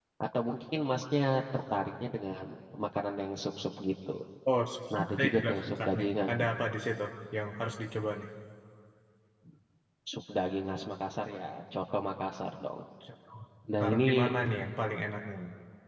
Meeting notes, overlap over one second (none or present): present